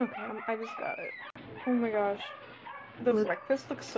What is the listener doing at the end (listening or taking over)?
listening